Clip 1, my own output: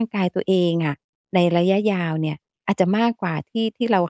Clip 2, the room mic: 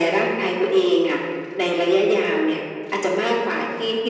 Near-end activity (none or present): none